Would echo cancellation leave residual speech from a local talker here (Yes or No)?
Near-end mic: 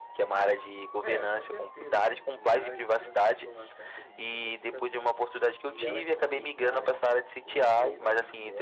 Yes